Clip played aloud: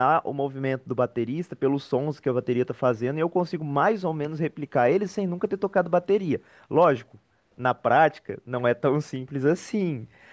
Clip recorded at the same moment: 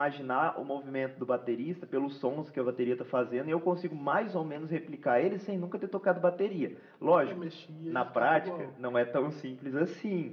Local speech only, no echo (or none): Eu mexia e ficava igual.